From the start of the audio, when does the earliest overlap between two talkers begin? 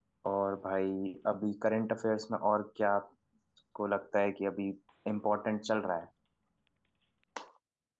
none

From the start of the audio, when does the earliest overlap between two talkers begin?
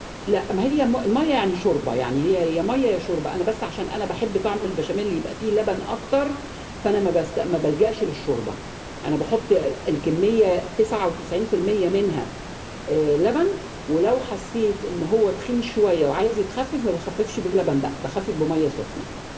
none

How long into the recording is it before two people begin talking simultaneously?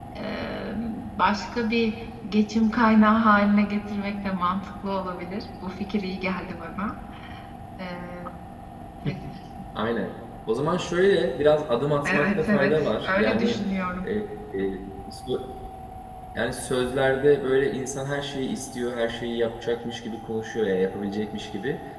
12.0 s

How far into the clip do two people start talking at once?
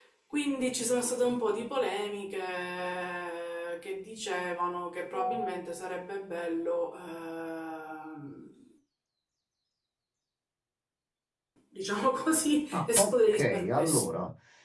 12.7 s

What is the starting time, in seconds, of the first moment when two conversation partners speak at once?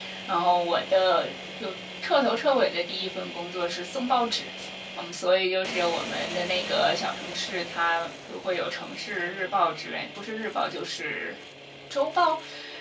none

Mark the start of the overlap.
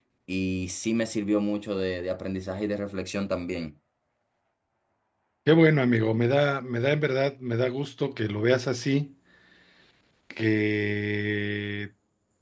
none

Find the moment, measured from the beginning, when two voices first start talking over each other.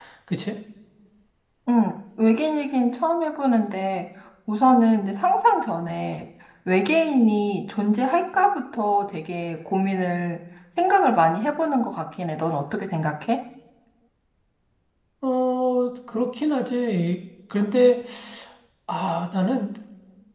none

